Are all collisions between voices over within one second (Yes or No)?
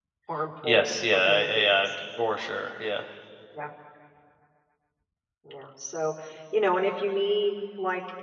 No